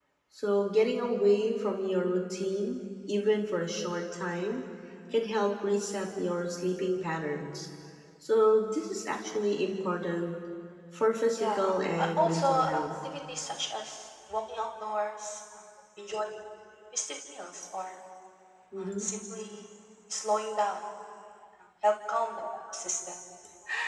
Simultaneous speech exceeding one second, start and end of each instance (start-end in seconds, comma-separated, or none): 11.4-12.8